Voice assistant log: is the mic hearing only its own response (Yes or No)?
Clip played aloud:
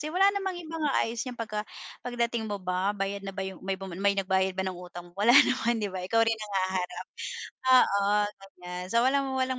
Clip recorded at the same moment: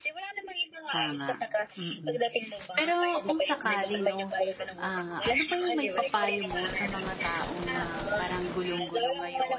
No